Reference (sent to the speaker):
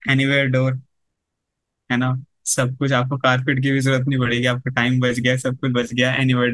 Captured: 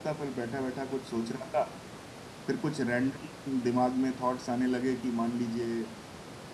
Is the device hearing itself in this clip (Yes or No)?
No